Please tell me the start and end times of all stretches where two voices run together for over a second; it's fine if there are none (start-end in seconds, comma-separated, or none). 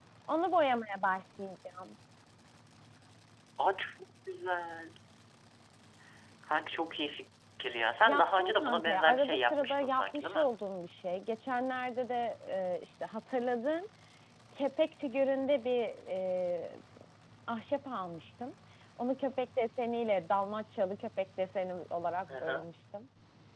8.1-10.5